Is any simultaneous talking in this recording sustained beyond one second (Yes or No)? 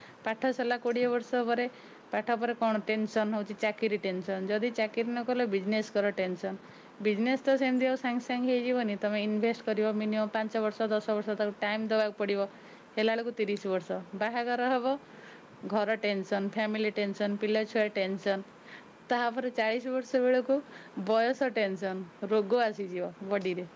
No